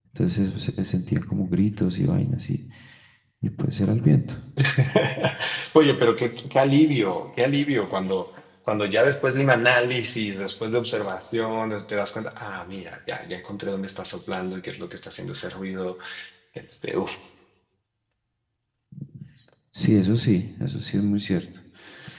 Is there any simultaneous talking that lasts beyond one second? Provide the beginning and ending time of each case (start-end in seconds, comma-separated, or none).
none